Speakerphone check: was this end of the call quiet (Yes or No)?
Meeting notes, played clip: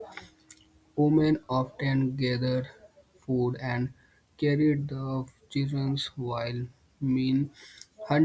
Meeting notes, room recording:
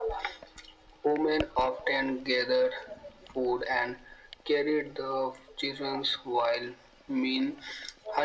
Yes